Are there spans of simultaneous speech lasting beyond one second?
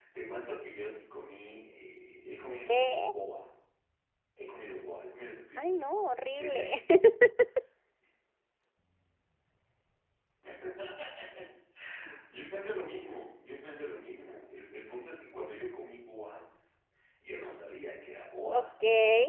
No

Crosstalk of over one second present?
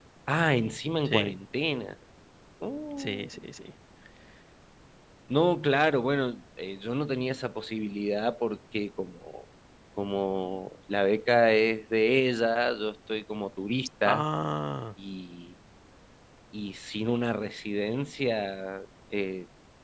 No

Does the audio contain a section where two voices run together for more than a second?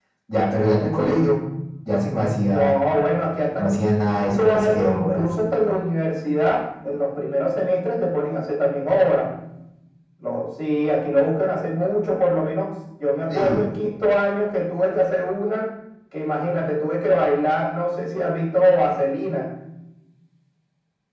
Yes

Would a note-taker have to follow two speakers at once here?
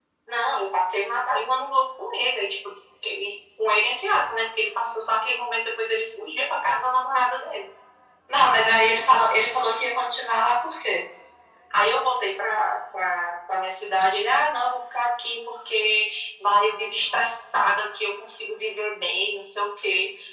No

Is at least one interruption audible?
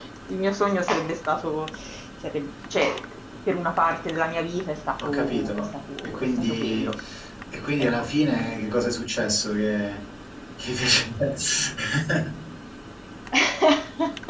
Yes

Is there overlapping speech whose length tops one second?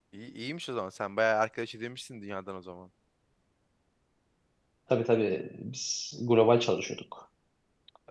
No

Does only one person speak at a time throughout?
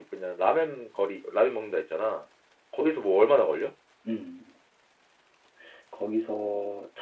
Yes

